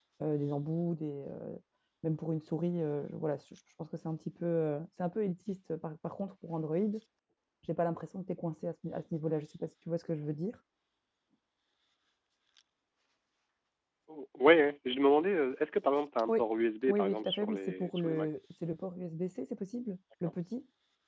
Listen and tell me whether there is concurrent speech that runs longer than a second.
Yes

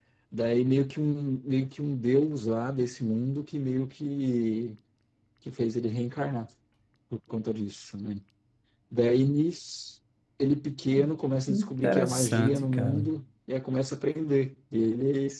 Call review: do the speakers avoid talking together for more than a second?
No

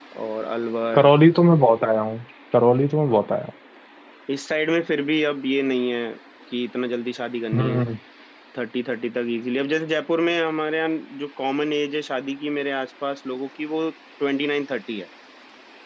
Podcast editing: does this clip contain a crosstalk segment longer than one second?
No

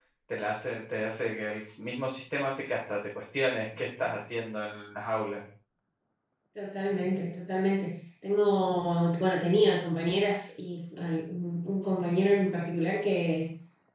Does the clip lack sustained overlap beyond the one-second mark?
Yes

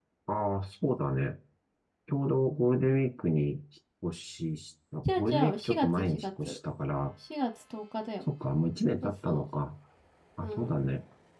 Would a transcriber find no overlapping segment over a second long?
No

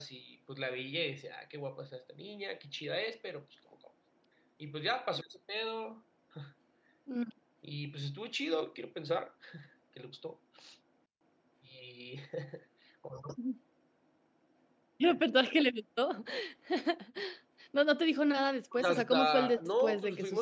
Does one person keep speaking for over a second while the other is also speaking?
Yes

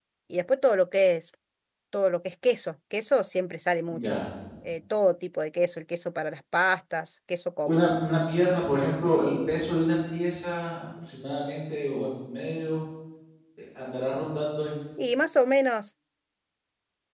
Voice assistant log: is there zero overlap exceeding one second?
Yes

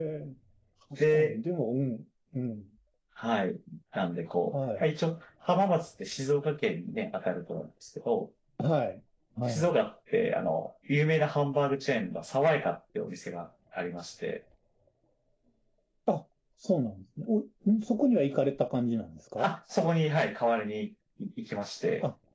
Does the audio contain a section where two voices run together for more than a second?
No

